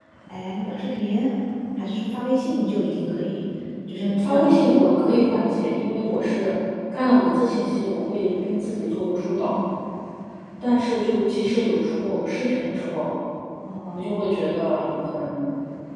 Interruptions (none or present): present